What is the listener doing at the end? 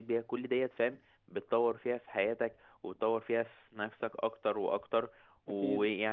listening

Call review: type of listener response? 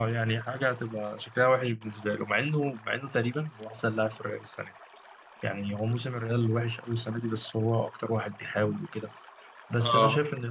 listening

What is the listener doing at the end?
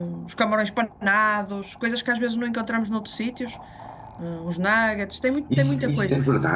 taking over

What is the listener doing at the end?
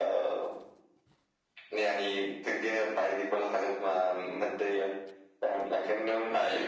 listening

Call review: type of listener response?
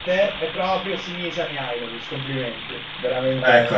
listening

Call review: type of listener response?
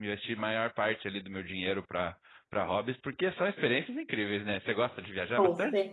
taking over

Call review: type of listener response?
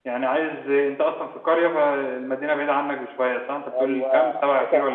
taking over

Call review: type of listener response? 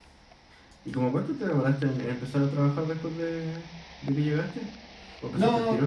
taking over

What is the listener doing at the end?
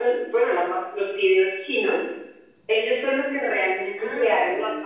listening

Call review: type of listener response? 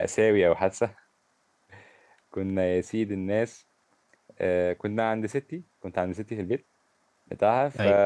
listening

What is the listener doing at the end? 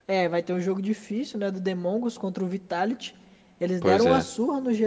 listening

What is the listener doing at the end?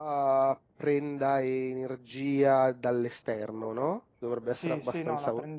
taking over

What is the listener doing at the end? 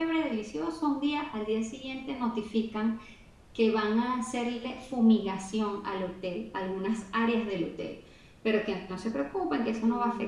listening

